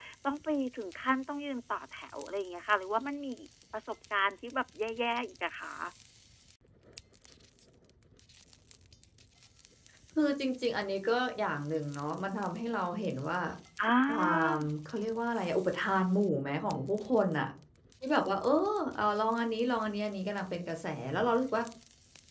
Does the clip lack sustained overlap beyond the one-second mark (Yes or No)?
Yes